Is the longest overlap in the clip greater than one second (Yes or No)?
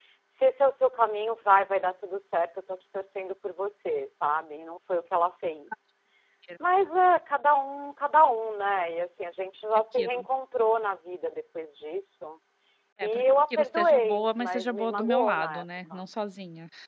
Yes